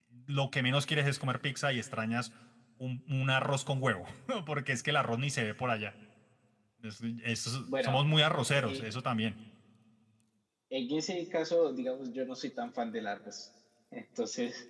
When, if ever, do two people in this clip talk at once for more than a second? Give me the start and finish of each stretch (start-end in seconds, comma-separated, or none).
none